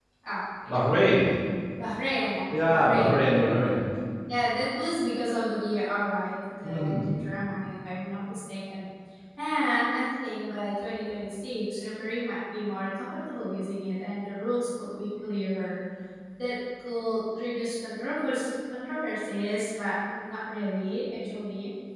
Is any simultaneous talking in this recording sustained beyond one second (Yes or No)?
Yes